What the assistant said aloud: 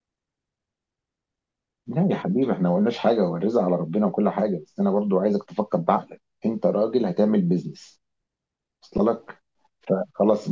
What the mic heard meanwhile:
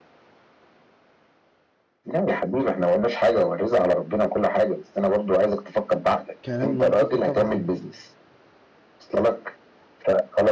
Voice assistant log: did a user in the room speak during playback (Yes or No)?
Yes